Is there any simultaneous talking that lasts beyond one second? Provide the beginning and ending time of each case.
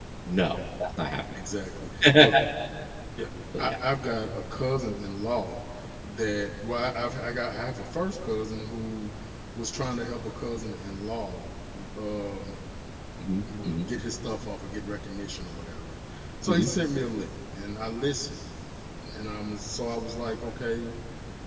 none

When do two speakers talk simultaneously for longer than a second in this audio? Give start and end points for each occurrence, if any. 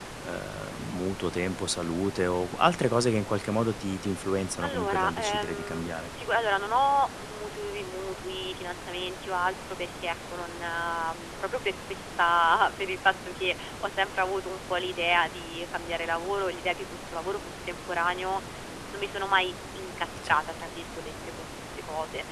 4.6-6.1

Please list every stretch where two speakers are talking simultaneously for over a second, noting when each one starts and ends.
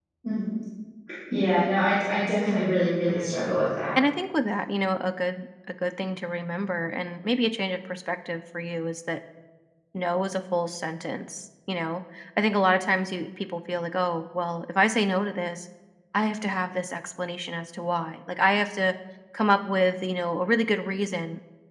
none

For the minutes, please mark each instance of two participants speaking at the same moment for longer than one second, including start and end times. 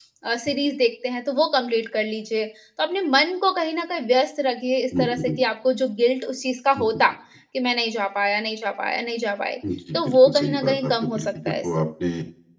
9.9-11.7

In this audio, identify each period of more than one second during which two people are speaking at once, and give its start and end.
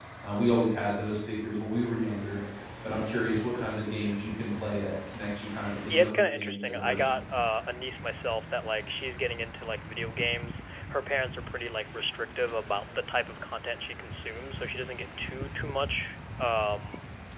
5.9-7.1

